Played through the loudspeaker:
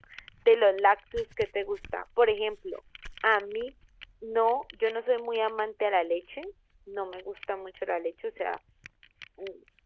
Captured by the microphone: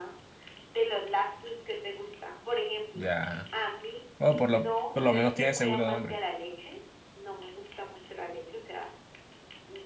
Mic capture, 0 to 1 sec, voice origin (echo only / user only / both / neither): echo only